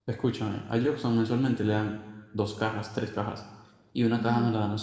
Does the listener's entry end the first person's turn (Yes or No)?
No